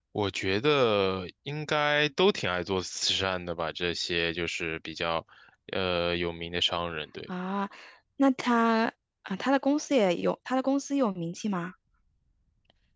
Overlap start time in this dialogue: none

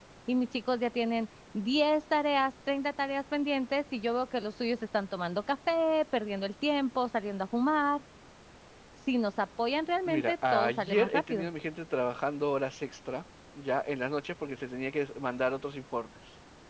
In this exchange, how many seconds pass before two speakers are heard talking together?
10.1 s

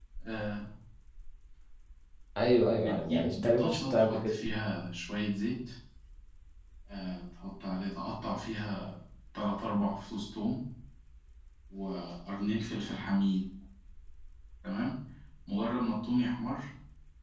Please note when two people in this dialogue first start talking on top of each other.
2.7 s

